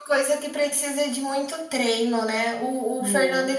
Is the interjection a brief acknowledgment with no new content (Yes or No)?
Yes